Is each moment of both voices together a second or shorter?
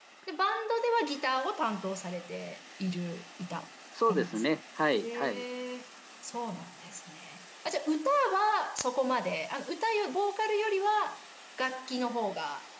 Yes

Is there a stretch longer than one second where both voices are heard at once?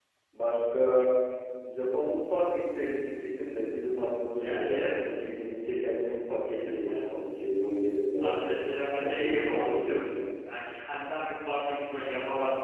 Yes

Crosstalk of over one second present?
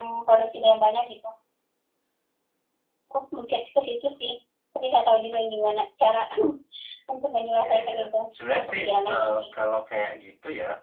Yes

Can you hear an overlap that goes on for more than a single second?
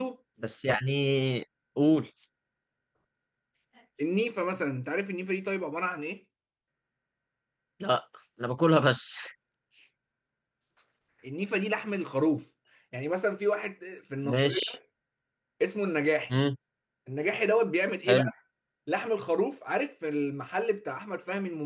No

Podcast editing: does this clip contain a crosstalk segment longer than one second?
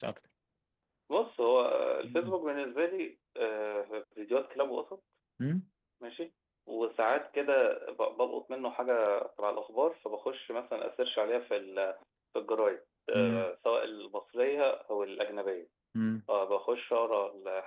No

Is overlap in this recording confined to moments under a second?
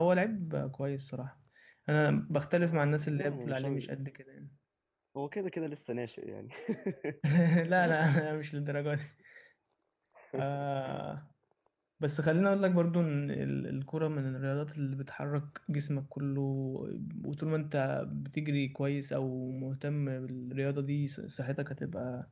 No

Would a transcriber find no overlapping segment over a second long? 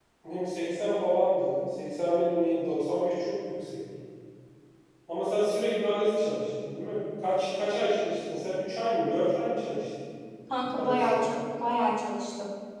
Yes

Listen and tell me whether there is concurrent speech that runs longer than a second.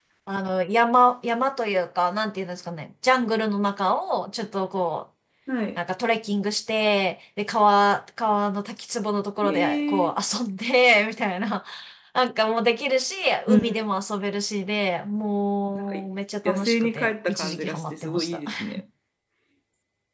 Yes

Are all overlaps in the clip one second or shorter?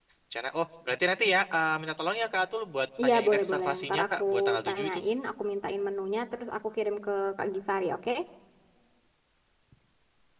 No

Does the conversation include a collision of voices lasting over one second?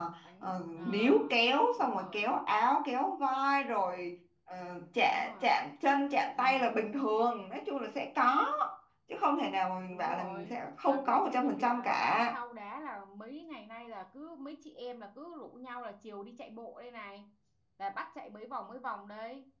Yes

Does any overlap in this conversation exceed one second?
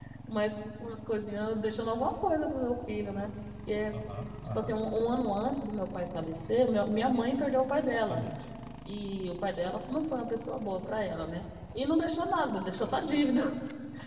No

